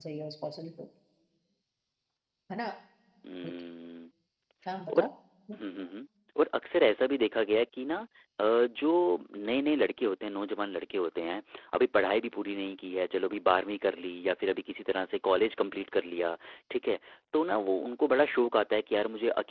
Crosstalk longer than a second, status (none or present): none